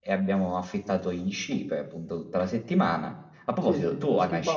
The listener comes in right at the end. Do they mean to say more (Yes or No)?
Yes